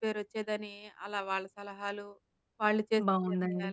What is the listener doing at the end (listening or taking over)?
taking over